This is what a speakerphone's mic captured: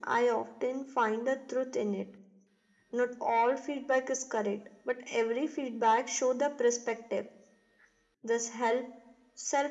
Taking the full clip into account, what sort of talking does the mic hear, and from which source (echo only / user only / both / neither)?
echo only